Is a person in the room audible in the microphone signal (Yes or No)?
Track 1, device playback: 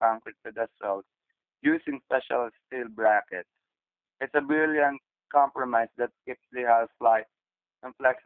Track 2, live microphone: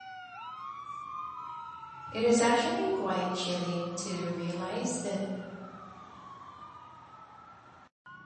Yes